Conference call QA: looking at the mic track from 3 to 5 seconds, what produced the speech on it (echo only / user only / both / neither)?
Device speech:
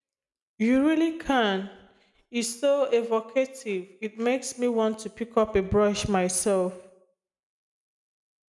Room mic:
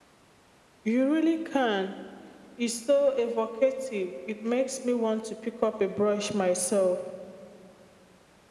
echo only